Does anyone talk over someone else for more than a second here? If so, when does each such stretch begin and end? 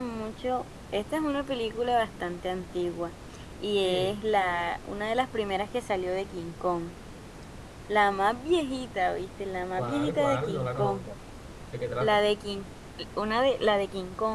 9.8-11.0

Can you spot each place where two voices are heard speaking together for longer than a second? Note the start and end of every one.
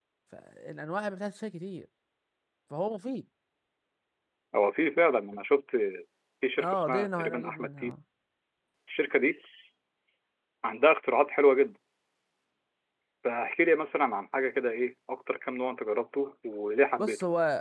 6.6-8.0

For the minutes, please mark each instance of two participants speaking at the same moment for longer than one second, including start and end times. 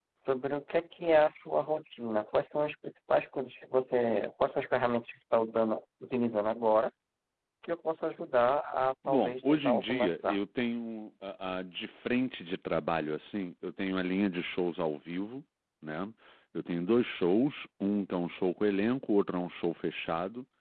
9.1-10.4

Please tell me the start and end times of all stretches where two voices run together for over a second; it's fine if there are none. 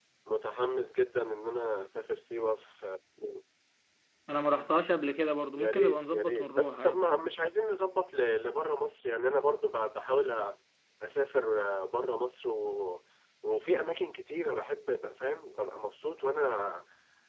5.6-7.0

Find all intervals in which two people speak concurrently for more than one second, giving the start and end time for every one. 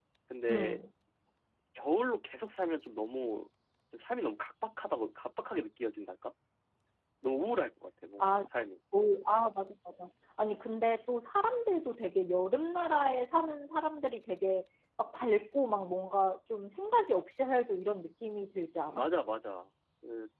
none

